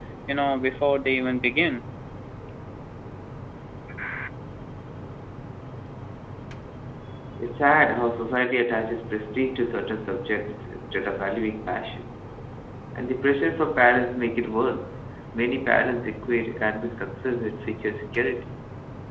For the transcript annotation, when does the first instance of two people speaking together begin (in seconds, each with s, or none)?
none